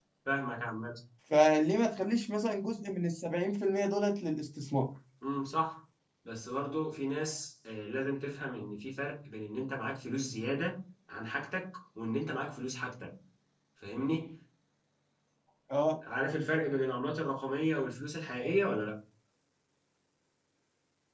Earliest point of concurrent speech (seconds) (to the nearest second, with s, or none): none